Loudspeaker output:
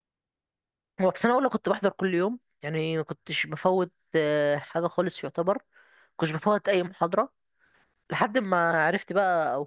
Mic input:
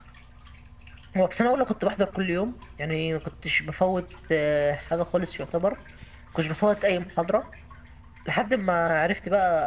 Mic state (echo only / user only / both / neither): echo only